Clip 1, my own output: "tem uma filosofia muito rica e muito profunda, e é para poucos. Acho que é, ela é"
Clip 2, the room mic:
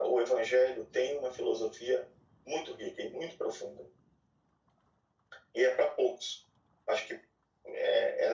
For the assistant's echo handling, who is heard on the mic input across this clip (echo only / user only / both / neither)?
echo only